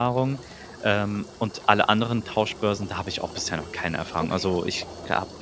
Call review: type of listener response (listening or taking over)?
listening